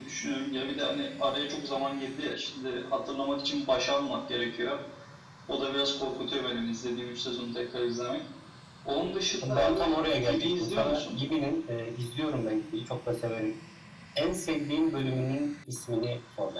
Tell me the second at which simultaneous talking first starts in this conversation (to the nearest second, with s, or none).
9 s